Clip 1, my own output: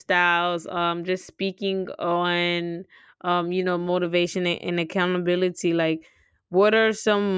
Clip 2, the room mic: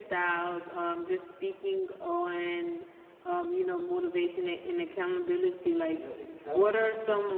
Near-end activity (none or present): present